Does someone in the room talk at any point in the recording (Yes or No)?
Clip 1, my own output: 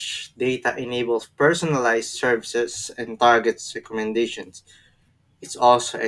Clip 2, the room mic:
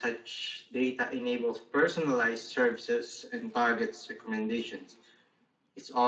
No